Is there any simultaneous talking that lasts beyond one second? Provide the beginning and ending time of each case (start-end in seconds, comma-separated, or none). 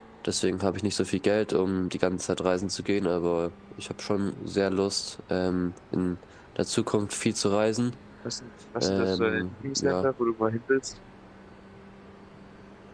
8.8-10.1